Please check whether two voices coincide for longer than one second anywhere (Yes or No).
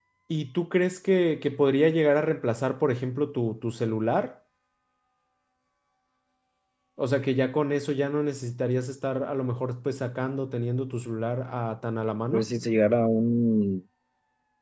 No